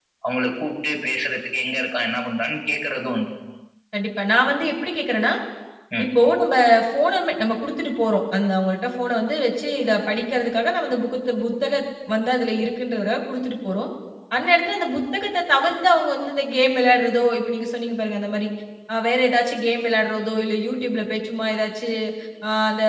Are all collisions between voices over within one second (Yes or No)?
Yes